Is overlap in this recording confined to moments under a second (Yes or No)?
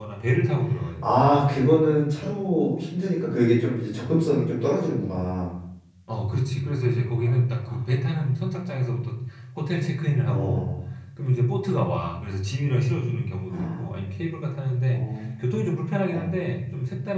Yes